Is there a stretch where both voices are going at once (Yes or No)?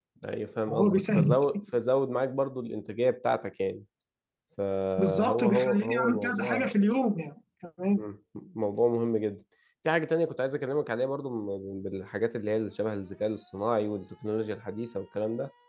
Yes